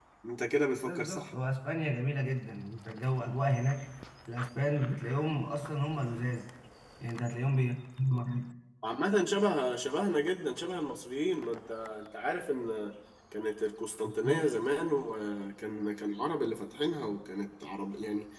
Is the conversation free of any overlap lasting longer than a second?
Yes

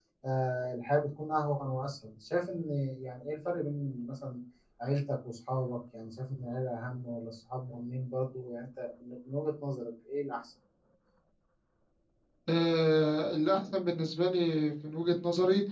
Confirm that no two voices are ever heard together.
Yes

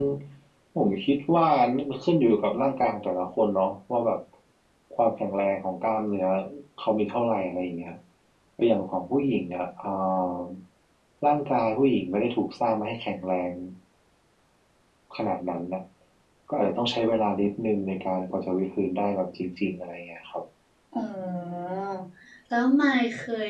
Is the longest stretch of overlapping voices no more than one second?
Yes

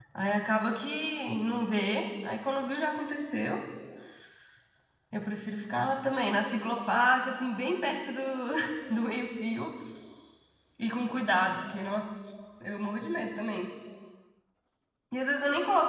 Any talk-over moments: No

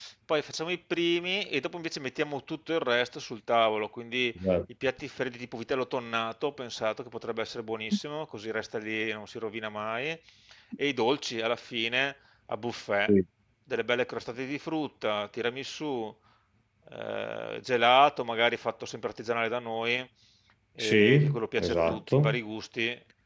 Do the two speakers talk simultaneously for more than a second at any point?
Yes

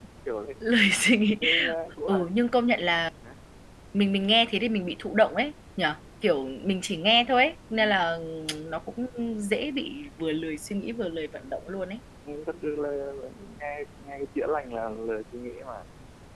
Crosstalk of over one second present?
No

